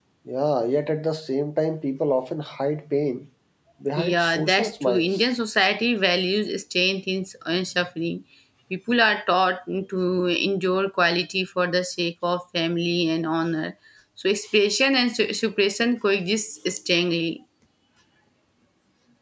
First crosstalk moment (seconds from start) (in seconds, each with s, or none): 4.0 s